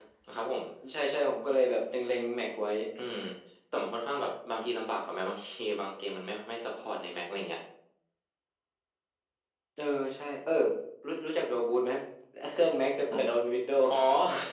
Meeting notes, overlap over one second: none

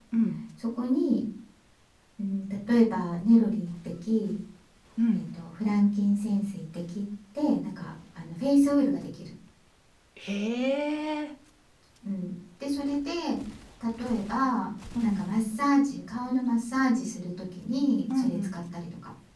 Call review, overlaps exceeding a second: none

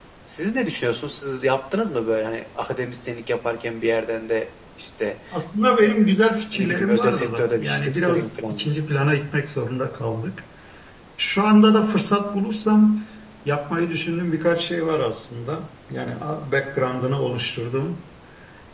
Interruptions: present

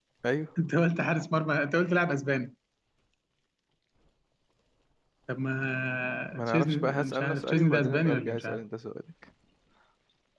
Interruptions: present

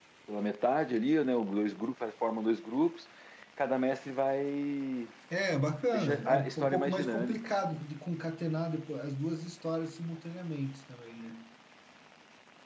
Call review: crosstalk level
present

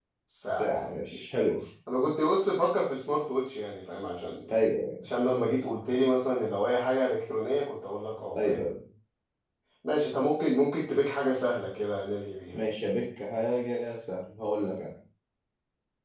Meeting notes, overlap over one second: none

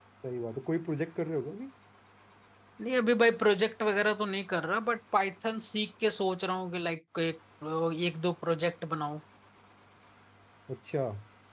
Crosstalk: none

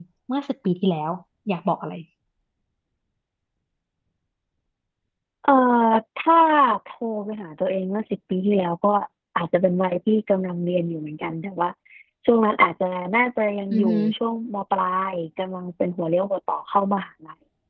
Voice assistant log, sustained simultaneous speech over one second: none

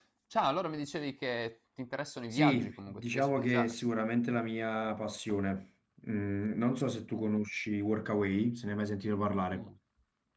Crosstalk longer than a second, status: present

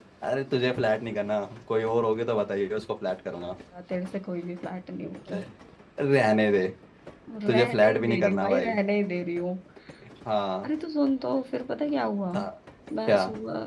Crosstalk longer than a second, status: present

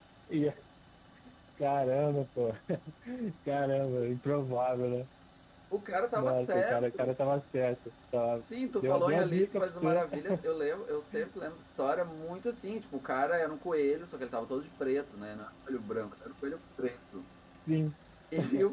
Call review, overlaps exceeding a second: present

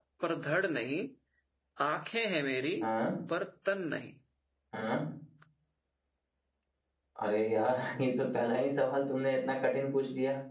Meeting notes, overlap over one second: none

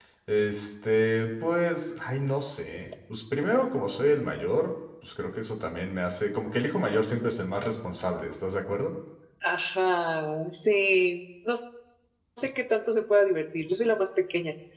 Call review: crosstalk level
none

